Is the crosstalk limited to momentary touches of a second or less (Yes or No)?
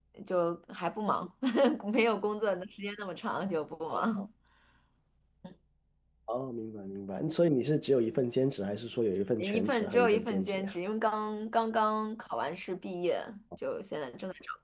No